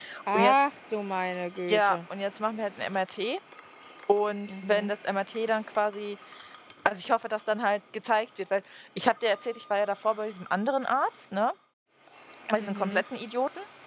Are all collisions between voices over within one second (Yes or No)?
Yes